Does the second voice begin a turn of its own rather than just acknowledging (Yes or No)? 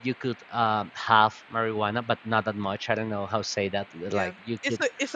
Yes